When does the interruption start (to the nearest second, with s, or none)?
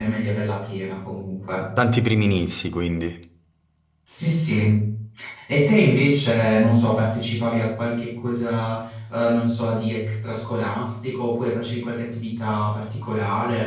none